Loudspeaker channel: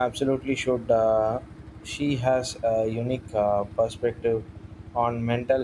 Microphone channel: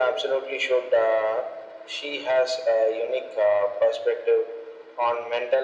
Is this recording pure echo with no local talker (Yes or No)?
Yes